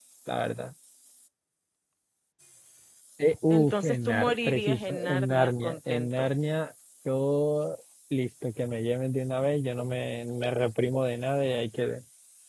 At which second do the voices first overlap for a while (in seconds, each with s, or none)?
3.5 s